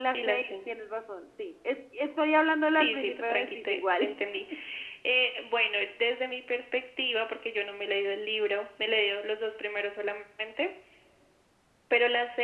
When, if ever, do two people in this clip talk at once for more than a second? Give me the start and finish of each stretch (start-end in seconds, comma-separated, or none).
2.7-4.1